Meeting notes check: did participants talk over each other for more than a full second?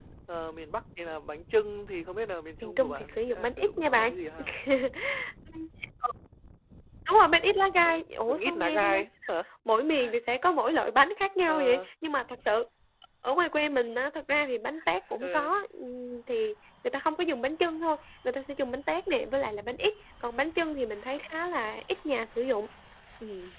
Yes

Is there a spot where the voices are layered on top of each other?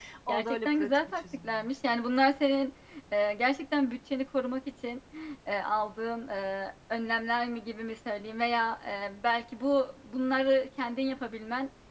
Yes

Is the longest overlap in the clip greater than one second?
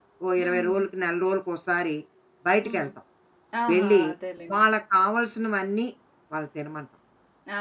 No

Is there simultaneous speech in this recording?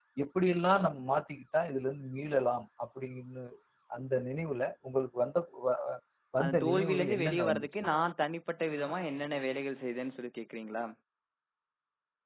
Yes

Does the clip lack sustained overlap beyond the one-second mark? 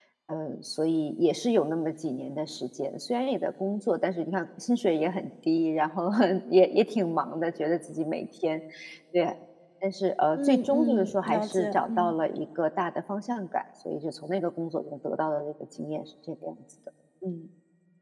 No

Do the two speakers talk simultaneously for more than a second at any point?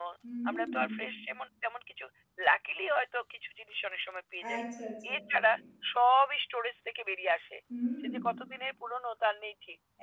No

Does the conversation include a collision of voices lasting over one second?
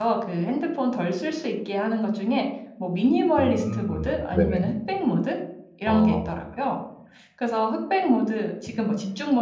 Yes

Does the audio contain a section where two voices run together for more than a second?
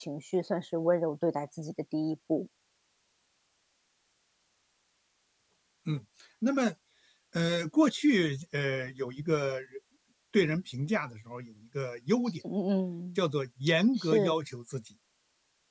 No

